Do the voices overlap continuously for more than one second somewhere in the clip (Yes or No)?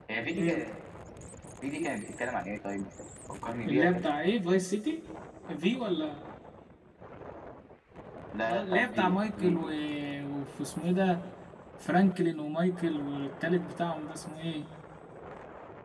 Yes